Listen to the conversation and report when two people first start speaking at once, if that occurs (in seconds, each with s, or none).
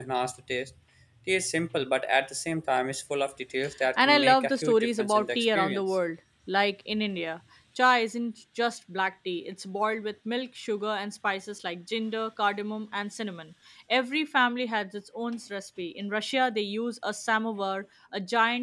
4.0 s